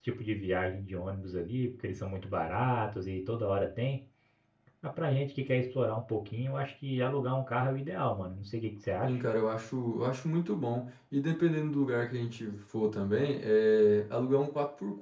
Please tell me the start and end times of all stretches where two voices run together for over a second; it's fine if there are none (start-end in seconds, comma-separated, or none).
none